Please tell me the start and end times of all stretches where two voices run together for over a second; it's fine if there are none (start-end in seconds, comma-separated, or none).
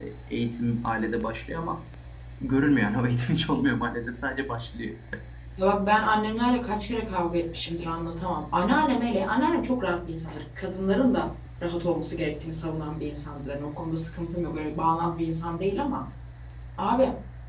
none